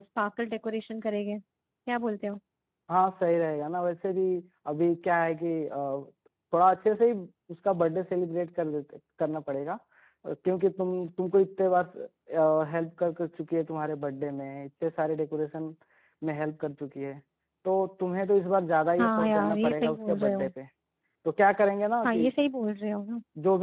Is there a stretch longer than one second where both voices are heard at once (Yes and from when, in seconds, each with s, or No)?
Yes, from 19.0 s